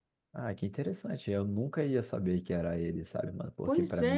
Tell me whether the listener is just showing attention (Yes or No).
Yes